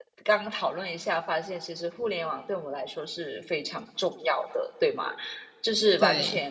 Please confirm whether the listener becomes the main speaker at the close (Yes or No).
No